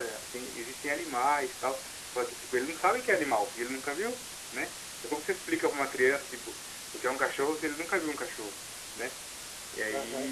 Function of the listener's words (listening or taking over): taking over